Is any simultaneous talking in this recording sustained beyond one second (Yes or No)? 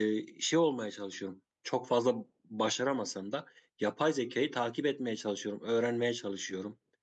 No